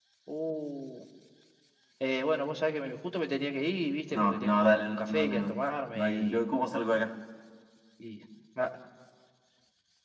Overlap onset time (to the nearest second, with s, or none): 4 s